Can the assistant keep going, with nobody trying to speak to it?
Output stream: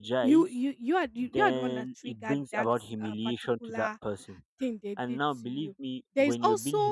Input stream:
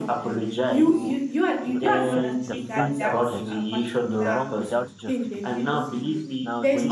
No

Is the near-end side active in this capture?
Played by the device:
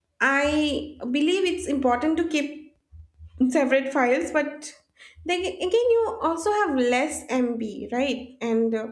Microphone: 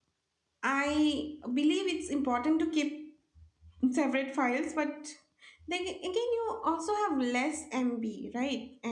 No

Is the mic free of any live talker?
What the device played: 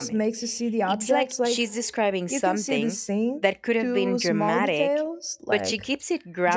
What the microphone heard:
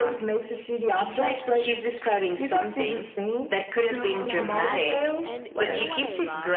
No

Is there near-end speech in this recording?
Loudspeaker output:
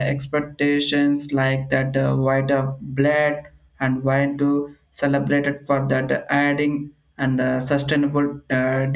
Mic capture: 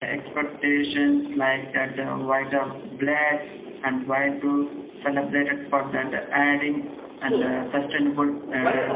Yes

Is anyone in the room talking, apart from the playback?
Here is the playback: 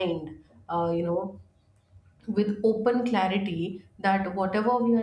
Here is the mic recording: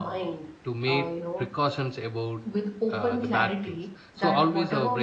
Yes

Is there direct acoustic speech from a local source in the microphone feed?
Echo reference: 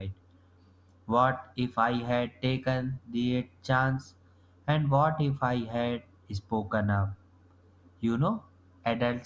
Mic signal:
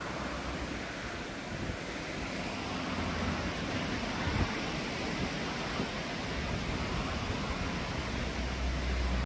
No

